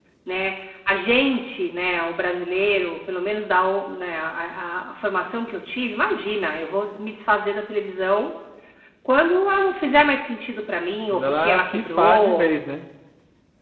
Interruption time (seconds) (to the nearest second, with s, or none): 11 s